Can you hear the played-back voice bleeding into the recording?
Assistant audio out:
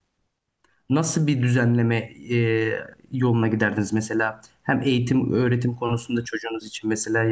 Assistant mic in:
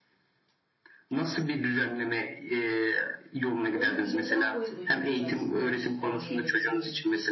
Yes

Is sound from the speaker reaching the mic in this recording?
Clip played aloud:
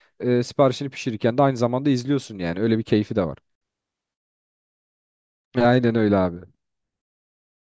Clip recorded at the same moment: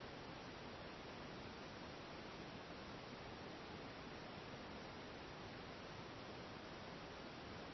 No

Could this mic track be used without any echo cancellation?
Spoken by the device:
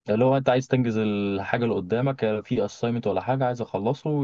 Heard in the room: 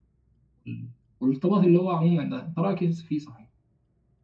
Yes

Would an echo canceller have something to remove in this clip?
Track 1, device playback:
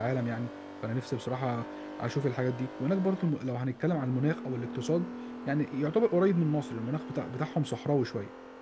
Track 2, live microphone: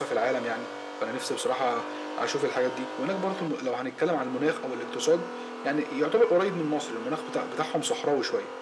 Yes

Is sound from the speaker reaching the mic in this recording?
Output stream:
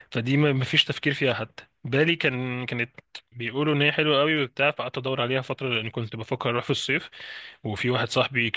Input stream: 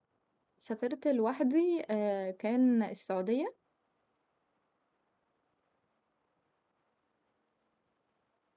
No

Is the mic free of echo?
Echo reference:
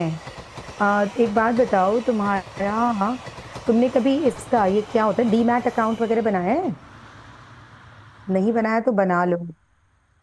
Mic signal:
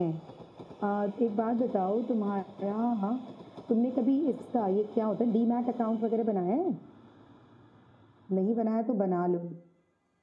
No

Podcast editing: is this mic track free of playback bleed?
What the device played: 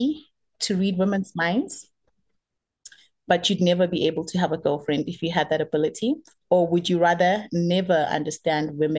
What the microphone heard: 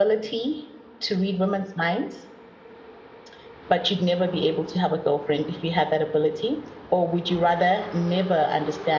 No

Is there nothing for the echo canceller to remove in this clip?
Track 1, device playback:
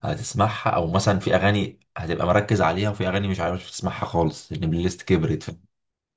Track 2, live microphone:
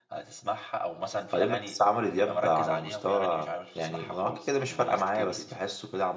No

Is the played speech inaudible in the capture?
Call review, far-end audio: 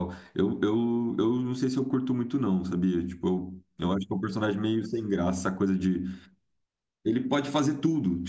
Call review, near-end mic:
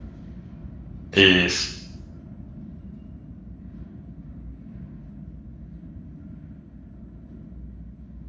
Yes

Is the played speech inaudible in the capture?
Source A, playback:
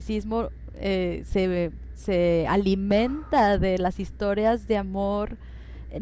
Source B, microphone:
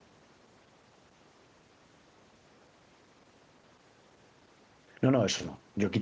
Yes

